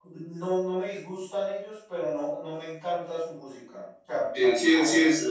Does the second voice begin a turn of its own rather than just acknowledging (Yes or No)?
Yes